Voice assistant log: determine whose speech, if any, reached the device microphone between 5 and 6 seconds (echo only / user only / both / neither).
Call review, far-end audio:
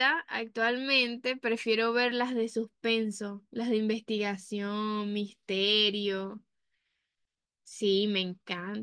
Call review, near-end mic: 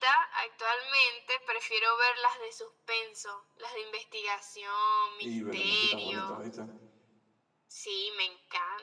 both